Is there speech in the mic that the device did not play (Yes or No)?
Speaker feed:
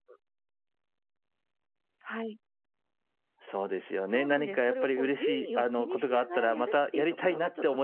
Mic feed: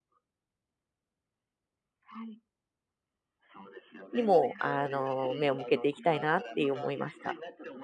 Yes